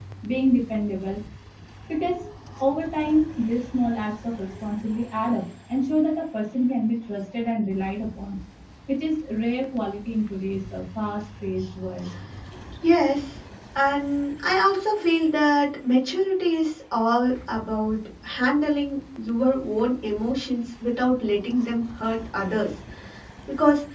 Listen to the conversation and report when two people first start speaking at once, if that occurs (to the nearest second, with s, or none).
none